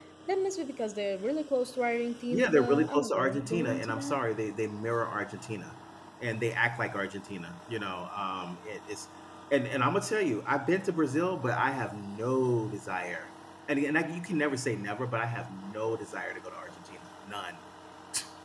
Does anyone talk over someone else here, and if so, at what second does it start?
2.3 s

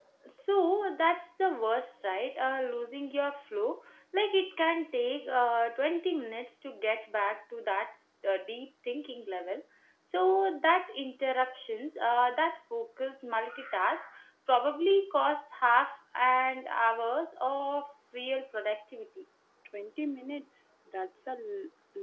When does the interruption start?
none

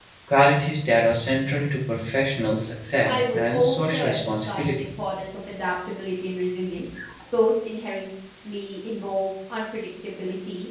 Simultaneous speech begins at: 3.0 s

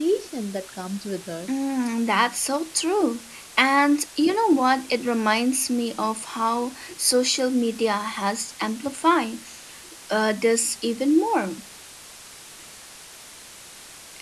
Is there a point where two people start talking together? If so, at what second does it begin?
none

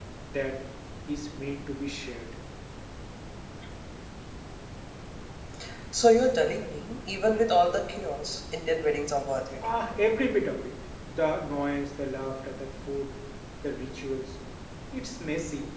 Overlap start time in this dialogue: none

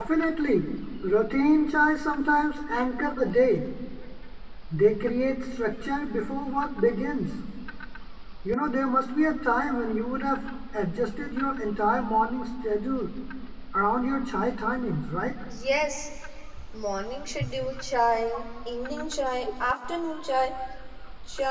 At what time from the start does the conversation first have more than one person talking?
none

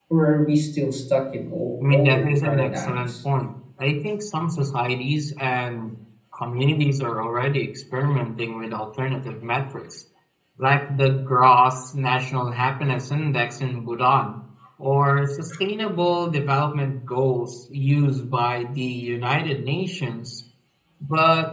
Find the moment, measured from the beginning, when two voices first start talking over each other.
1.8 s

